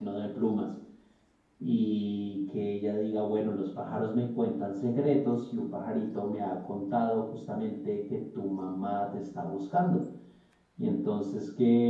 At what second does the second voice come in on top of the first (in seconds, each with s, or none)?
none